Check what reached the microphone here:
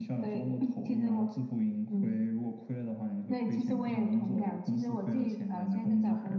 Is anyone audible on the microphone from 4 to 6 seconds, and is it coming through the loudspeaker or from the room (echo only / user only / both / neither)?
echo only